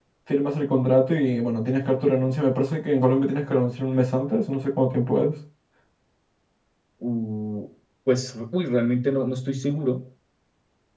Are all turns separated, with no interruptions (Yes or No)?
Yes